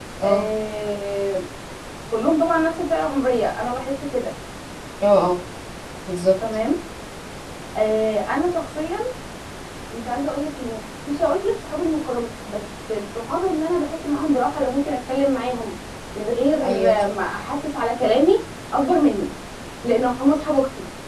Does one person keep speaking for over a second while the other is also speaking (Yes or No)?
No